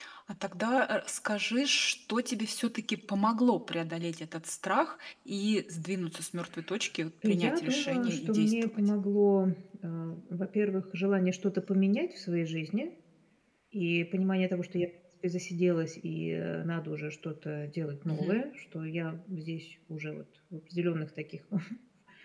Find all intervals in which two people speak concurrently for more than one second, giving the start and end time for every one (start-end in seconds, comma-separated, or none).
7.2-8.8